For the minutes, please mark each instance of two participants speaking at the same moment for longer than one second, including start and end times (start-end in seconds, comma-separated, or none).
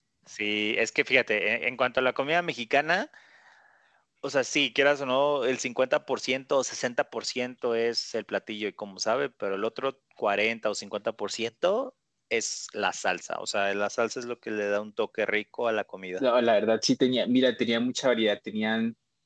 none